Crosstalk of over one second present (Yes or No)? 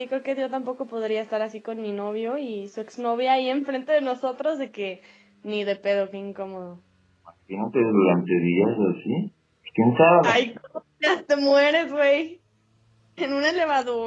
No